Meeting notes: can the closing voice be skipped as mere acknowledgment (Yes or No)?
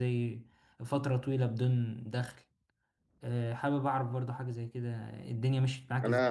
No